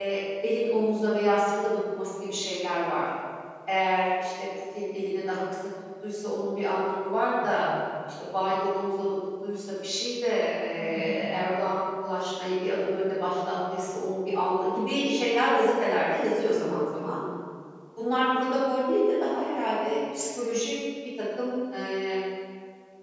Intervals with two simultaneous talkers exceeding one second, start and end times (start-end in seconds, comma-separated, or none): none